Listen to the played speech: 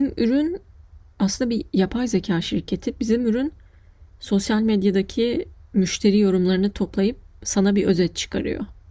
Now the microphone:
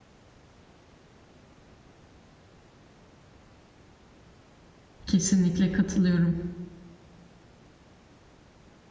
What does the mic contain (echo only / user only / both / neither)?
user only